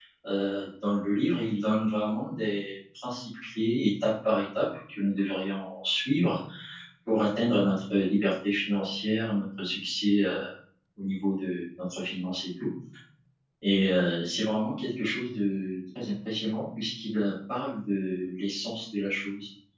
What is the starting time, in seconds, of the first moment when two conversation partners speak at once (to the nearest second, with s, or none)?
none